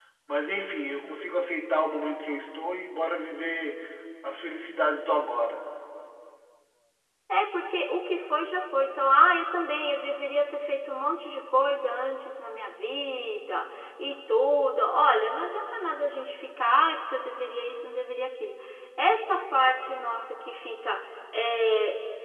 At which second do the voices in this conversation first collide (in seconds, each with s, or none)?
none